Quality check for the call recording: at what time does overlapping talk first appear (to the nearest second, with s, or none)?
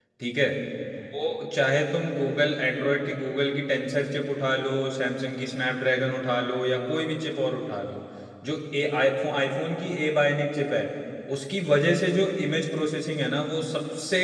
none